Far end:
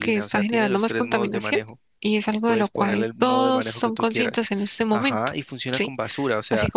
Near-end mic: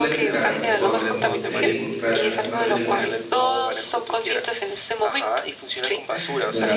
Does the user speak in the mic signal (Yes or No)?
Yes